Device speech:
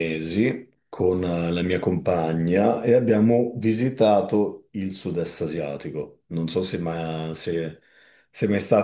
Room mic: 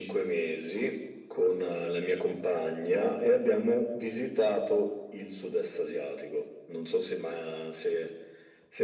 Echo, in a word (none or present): present